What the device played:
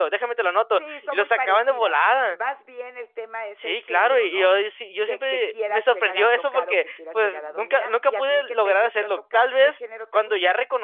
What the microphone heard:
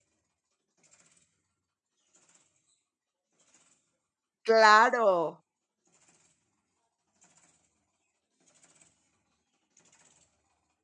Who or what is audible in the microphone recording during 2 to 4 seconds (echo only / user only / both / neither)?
neither